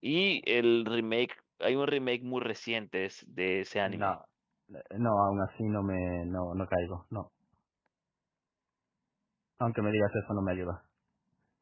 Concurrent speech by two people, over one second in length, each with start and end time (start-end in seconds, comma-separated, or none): none